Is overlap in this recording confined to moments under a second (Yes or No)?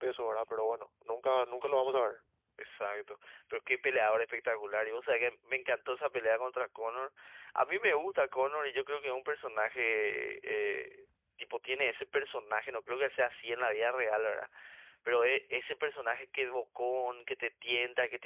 Yes